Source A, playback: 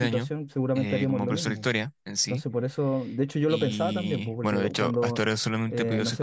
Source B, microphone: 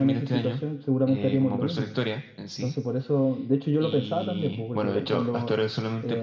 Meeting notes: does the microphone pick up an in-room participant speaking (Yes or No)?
No